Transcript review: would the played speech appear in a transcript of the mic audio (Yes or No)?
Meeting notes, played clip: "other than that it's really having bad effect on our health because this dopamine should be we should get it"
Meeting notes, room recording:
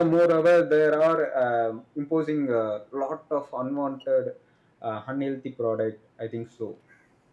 No